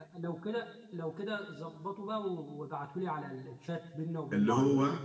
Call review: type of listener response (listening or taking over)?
taking over